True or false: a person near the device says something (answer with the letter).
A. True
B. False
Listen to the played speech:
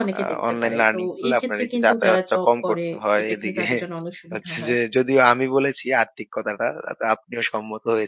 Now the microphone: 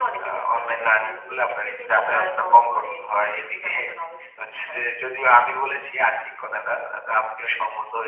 B